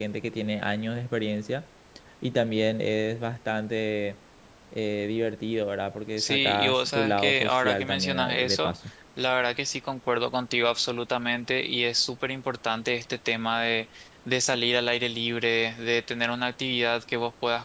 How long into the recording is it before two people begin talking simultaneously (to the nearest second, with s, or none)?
6 s